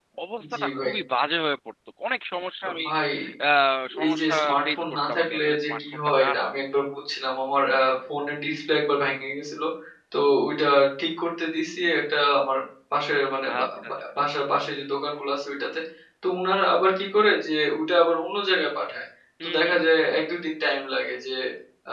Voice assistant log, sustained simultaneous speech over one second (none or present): present